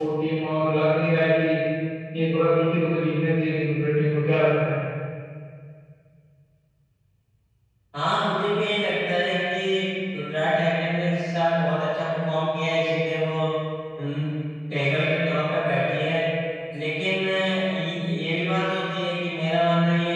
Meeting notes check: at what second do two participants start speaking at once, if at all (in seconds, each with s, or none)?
none